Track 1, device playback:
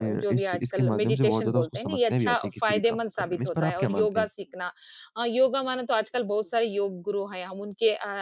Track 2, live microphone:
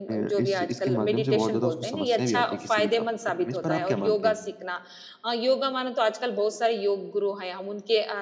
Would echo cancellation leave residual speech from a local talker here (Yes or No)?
No